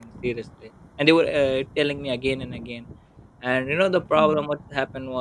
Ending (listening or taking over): listening